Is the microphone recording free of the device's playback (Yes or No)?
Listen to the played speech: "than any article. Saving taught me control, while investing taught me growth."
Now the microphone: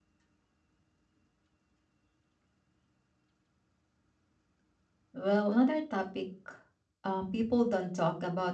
Yes